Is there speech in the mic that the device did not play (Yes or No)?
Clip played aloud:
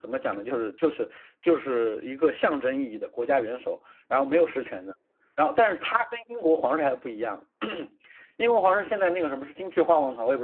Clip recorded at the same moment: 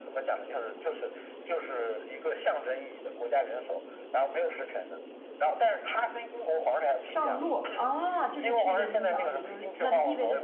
Yes